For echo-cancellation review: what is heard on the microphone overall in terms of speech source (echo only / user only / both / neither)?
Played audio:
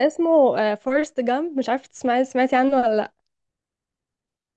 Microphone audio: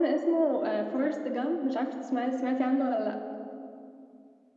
echo only